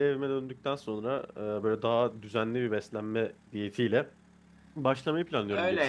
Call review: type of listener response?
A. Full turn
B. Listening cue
A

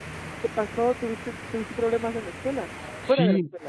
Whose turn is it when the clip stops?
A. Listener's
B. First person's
A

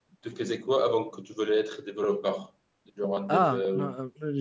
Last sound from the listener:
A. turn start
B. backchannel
A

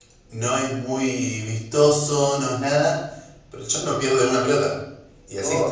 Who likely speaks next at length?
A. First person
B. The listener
B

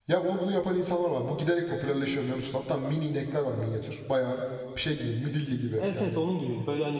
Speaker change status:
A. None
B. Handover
B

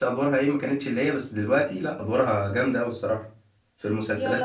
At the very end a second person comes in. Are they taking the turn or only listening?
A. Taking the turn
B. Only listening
A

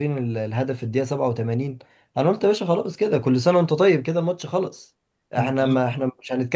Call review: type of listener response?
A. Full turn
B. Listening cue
B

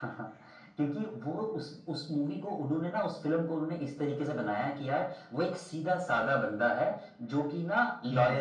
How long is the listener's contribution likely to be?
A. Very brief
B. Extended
A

